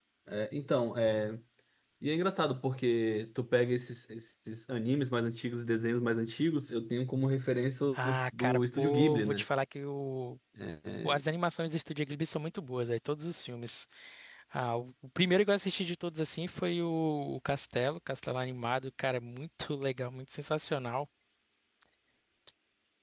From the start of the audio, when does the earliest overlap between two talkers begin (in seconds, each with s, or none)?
7.9 s